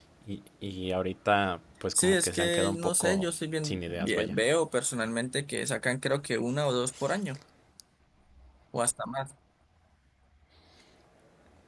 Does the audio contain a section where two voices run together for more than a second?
Yes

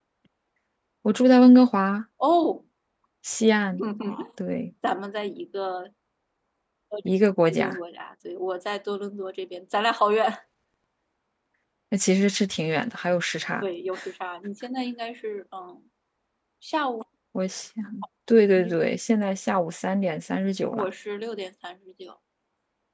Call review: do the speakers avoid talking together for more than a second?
Yes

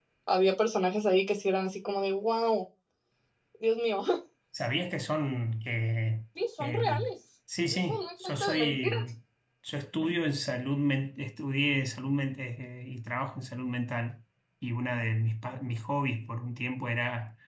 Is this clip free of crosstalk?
No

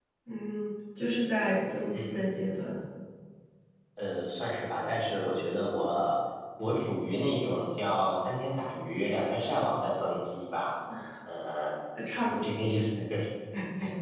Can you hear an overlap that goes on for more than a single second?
No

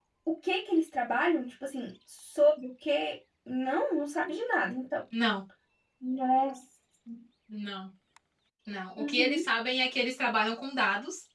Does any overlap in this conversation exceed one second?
No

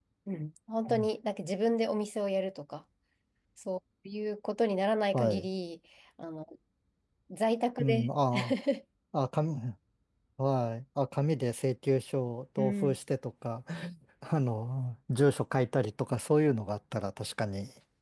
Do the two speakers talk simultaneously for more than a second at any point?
No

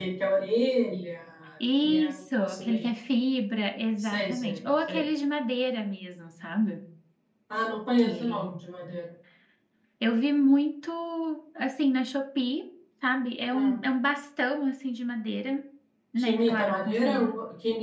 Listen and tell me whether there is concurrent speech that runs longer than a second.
Yes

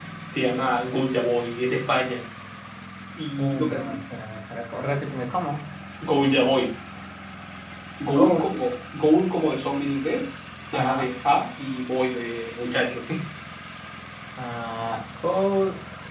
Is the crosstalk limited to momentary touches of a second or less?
Yes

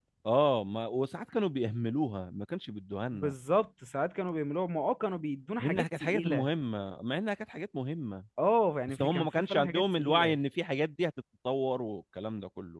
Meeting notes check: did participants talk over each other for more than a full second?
Yes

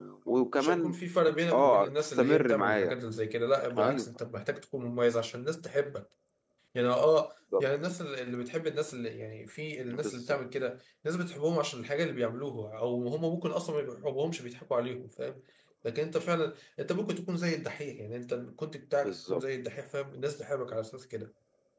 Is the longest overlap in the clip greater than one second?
Yes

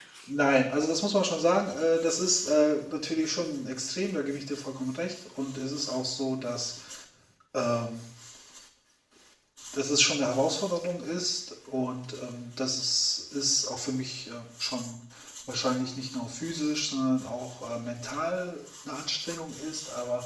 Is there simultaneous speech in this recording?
No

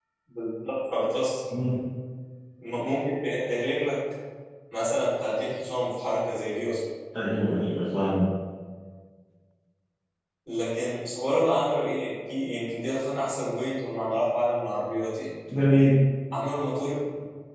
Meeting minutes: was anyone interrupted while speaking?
No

